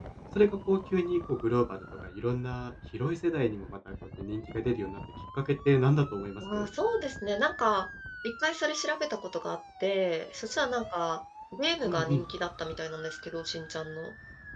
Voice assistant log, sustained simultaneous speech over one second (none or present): none